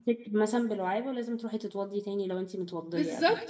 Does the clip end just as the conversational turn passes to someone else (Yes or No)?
Yes